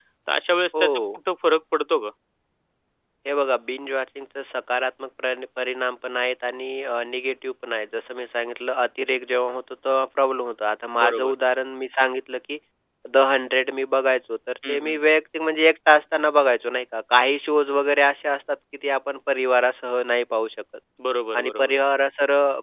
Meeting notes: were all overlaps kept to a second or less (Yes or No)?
Yes